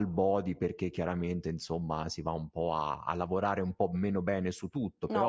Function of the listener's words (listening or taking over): taking over